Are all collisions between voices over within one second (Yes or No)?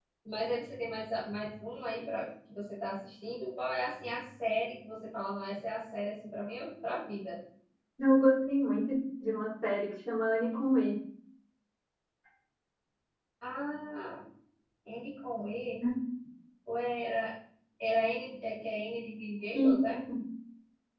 Yes